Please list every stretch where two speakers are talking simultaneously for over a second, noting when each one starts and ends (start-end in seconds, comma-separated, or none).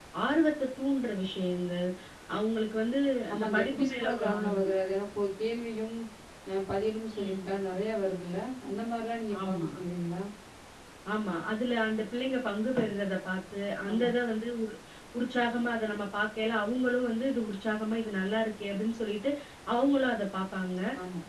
3.3-4.7